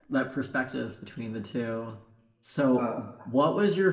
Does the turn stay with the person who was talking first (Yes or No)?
Yes